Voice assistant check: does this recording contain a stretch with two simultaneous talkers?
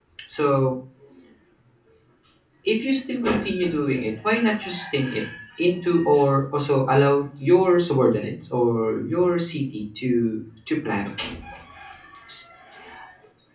No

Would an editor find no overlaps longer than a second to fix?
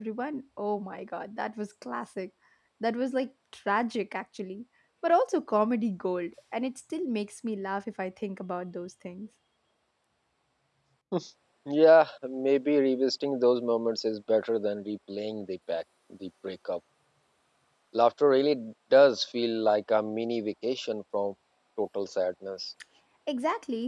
Yes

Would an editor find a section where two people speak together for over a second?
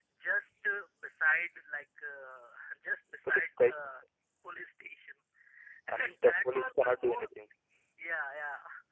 Yes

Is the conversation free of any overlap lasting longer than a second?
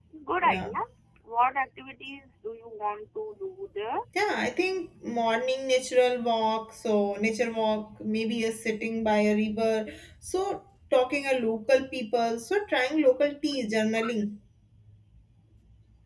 Yes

